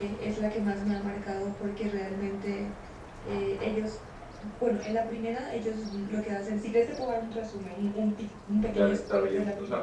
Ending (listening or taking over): taking over